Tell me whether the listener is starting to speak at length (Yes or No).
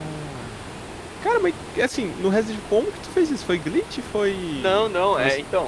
Yes